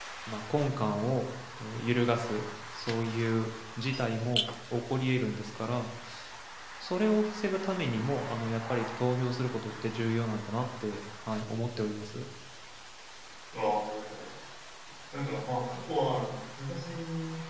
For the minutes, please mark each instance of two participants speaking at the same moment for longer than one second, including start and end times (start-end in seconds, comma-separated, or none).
none